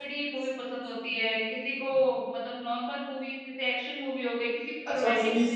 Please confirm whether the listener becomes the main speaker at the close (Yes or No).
Yes